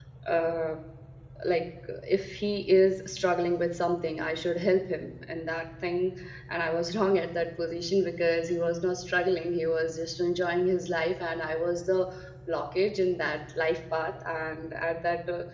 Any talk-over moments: No

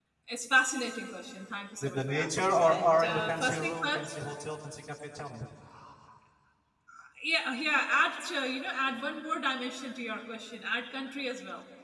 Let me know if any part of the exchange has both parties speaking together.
Yes, from 1.8 s

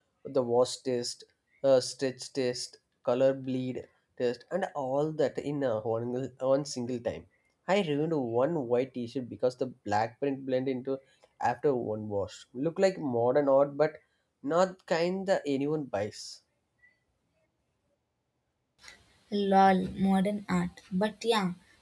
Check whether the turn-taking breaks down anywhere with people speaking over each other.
No

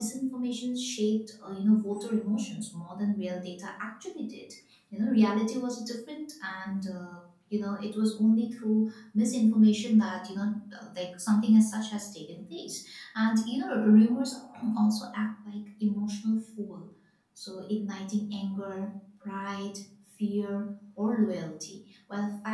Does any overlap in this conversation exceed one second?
No

